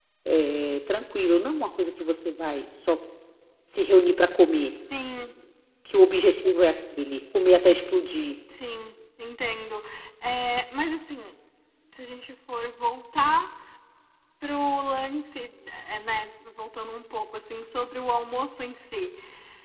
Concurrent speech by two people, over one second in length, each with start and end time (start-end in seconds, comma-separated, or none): none